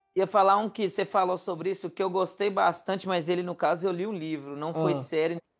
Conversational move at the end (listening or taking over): listening